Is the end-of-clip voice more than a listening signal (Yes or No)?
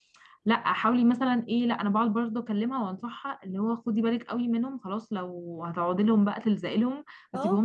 No